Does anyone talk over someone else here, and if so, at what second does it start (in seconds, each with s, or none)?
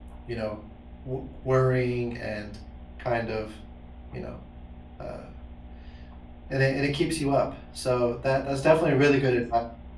none